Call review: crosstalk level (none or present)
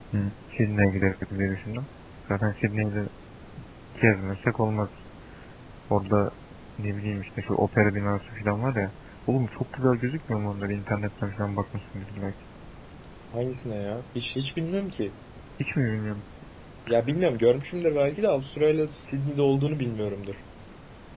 none